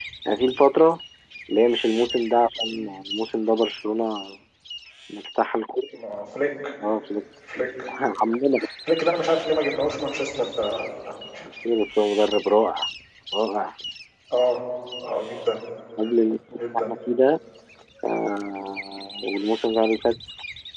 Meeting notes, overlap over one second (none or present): none